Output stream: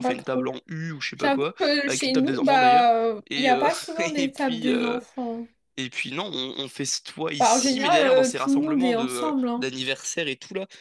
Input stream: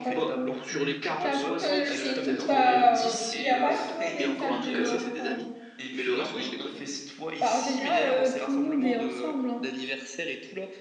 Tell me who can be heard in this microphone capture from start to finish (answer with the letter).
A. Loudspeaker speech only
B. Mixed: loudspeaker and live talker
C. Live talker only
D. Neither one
B